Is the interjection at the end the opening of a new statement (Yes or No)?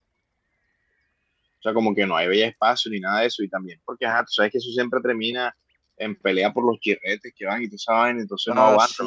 Yes